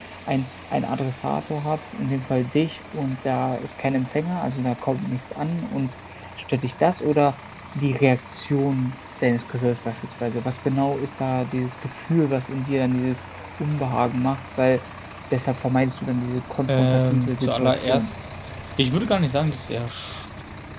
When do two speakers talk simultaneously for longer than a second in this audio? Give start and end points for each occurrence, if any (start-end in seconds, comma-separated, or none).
16.7-18.1